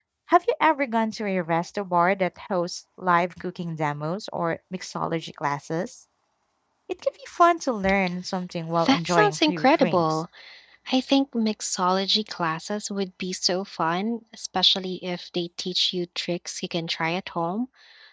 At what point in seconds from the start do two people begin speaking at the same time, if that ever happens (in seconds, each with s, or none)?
8.8 s